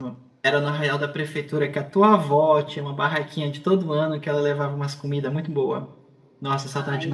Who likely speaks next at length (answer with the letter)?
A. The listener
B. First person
A